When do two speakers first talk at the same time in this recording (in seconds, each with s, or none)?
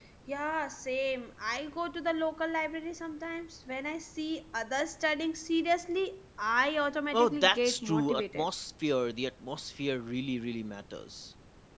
7.1 s